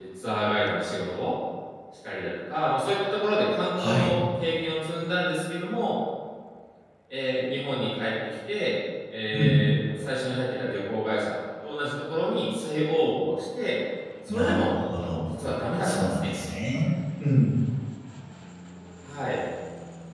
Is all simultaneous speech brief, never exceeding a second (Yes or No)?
Yes